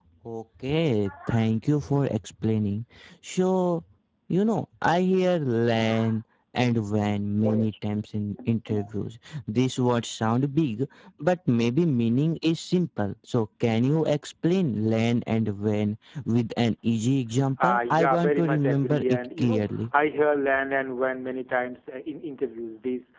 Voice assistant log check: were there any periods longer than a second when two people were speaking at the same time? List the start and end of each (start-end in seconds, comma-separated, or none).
17.6-19.6